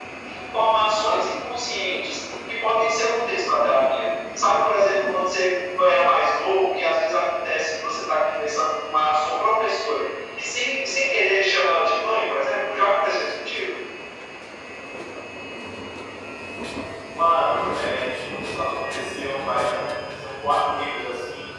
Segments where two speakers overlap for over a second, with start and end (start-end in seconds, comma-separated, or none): none